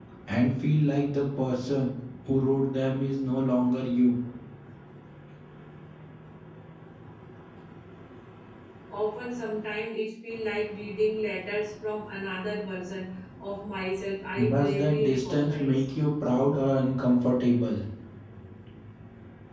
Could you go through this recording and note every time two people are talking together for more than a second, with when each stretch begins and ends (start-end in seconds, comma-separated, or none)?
14.5-15.8